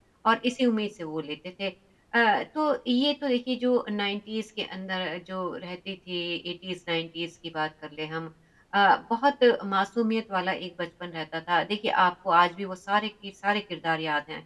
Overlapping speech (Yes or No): No